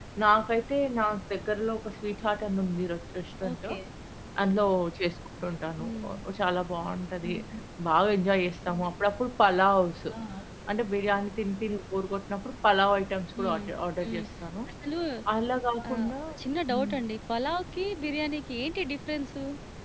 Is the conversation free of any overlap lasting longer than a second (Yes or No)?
Yes